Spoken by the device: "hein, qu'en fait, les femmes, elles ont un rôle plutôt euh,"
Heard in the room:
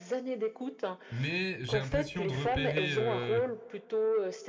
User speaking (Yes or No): Yes